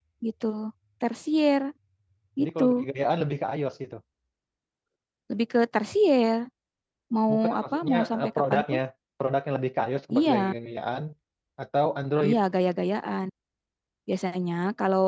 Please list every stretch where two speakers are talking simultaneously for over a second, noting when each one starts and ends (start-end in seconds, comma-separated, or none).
7.3-8.8